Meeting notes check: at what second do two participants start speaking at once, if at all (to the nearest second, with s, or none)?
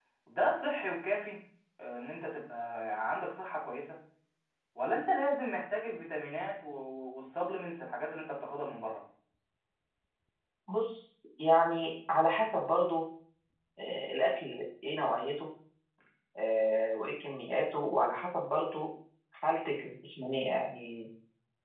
none